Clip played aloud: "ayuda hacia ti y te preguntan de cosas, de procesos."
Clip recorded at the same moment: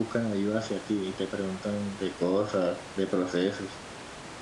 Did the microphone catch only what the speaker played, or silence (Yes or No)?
Yes